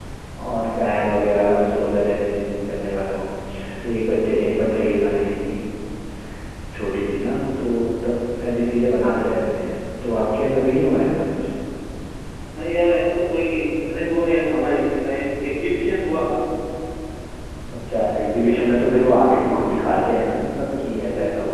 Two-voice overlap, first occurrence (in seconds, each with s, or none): none